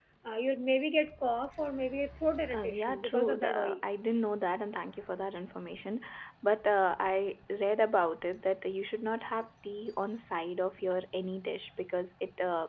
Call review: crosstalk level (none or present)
present